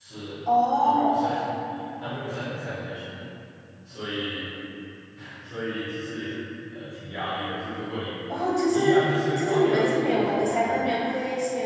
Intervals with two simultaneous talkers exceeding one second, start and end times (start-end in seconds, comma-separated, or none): 9.4-10.8